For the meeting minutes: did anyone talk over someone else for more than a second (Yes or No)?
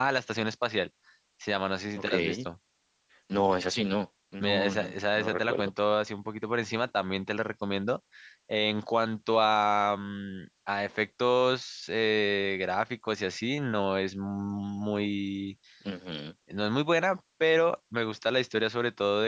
Yes